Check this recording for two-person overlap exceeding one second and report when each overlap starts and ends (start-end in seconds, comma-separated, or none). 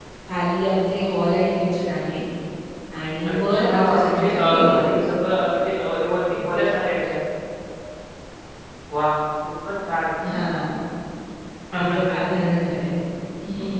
3.2-4.8